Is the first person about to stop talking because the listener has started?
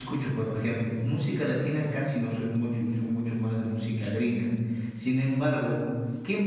No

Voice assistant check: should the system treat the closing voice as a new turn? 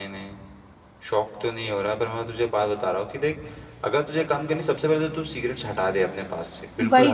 Yes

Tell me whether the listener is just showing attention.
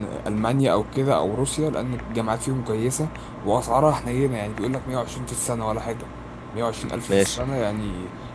Yes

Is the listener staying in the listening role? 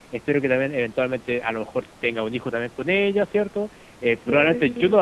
Yes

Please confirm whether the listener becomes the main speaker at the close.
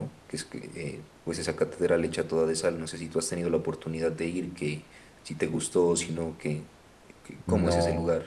Yes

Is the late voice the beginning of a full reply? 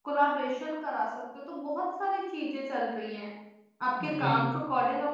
No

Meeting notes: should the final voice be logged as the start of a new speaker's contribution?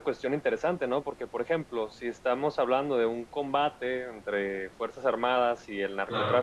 No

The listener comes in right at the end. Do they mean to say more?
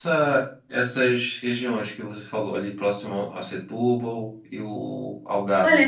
Yes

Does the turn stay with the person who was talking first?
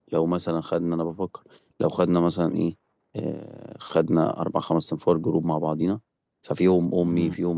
Yes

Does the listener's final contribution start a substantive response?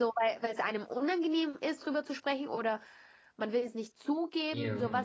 Yes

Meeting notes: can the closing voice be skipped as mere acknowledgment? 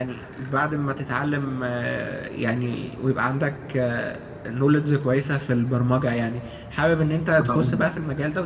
Yes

